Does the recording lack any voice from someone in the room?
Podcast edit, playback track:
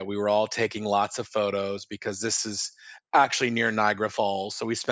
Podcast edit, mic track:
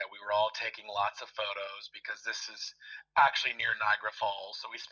Yes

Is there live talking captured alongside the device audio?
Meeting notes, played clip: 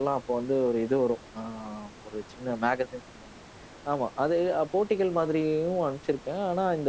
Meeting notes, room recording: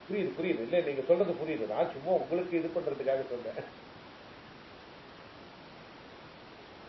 Yes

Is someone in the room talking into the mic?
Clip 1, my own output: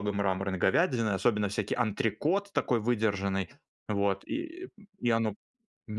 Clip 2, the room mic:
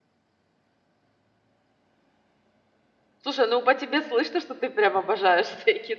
Yes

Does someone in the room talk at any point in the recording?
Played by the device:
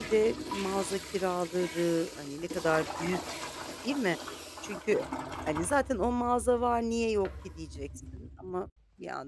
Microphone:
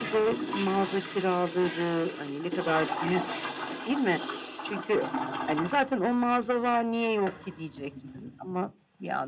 No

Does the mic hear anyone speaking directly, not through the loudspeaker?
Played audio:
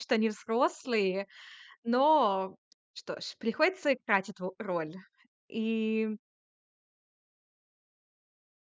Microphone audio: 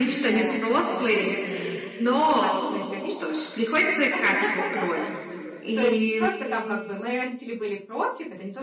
Yes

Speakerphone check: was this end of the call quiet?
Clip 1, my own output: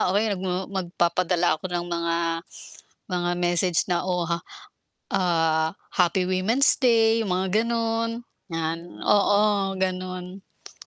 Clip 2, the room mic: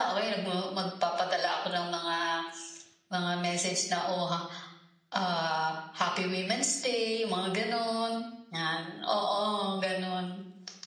Yes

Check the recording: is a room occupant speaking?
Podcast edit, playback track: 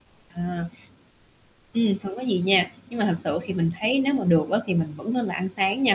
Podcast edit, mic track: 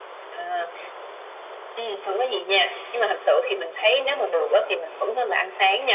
No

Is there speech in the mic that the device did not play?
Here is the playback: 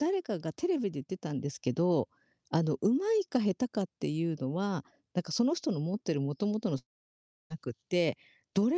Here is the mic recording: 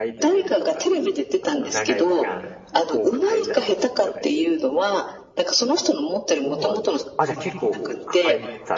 Yes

